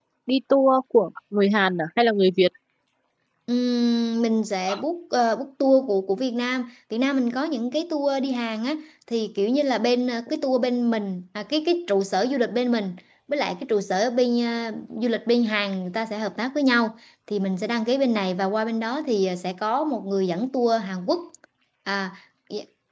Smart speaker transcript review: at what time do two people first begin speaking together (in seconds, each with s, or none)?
none